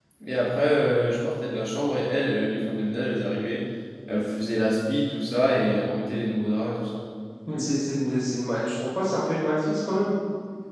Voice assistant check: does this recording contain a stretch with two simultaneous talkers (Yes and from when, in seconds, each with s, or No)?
No